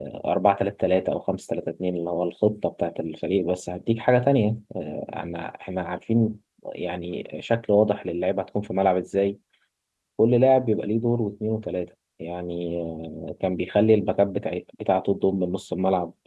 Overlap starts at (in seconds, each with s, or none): none